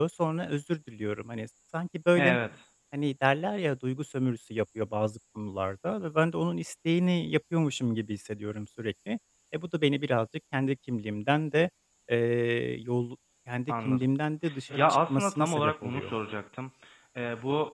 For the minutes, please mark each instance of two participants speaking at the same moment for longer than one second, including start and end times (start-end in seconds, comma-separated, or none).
14.8-16.1